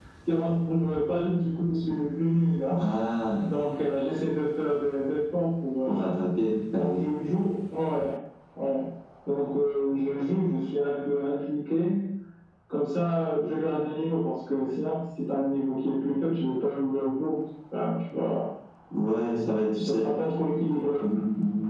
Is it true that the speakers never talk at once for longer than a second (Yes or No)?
Yes